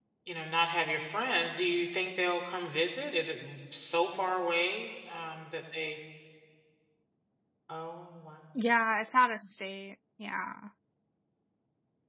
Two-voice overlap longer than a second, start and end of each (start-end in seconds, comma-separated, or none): none